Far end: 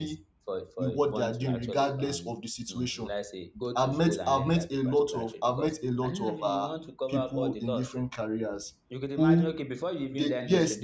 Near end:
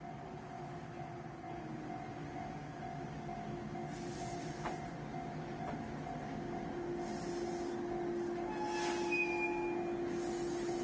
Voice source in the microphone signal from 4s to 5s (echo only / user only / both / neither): neither